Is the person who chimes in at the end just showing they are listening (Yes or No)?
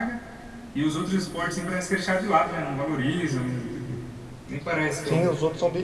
No